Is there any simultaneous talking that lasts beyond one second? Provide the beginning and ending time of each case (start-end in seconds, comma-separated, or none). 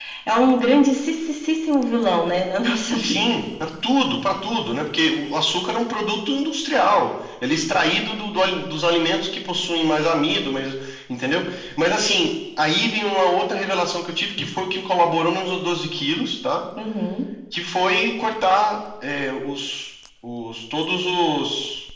none